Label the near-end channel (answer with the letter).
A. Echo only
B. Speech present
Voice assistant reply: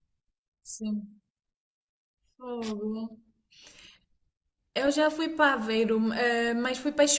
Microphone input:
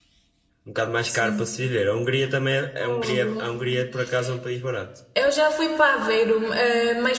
B